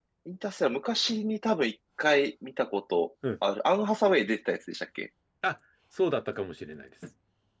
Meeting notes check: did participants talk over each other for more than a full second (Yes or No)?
No